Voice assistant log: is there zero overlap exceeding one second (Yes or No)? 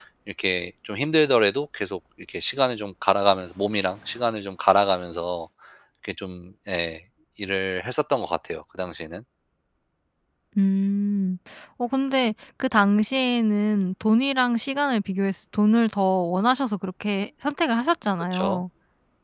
Yes